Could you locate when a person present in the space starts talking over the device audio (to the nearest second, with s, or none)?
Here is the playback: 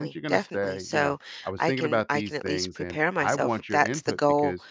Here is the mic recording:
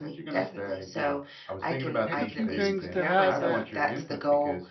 2 s